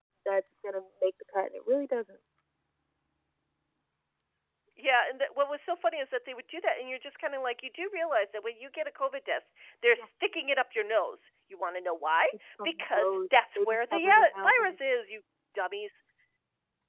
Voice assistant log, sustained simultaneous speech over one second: present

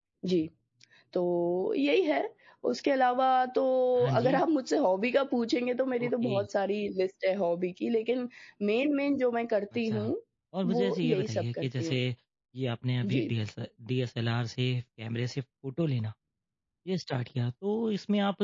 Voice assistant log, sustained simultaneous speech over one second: present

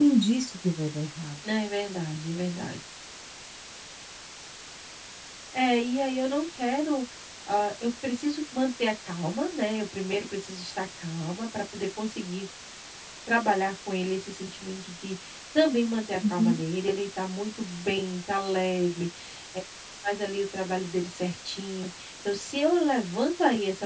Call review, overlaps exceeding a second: none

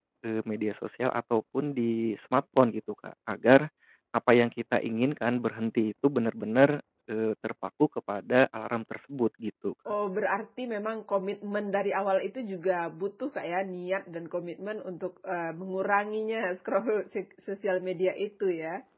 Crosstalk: none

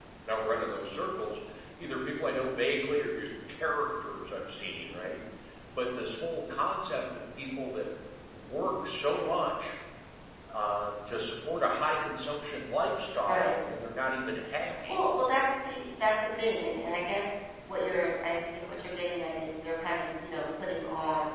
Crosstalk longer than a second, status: none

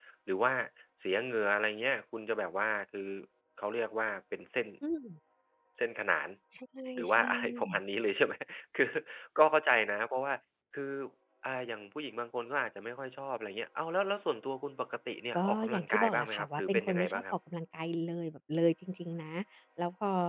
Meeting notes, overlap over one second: present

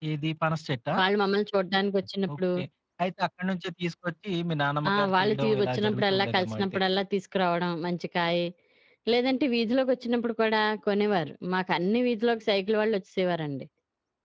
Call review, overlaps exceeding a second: present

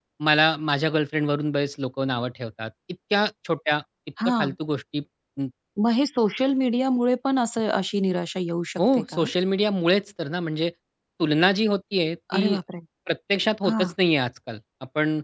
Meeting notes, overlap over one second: none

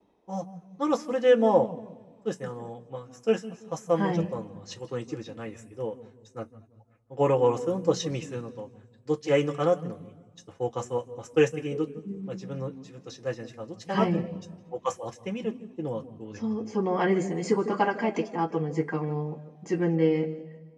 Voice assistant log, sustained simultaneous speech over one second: none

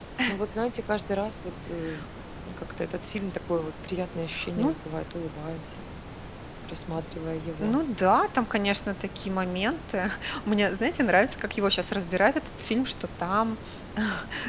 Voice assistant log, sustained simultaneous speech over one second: none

